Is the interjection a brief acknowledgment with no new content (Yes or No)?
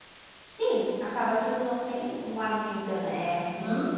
Yes